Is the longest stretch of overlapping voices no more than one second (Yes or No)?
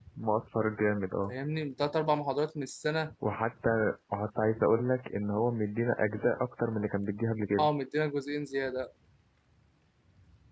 Yes